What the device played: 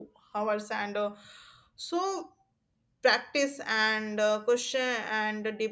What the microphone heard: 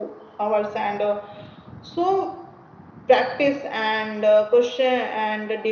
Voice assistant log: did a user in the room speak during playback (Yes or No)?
No